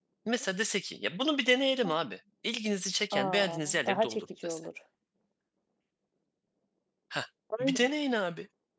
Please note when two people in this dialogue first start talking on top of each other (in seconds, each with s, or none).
3.1 s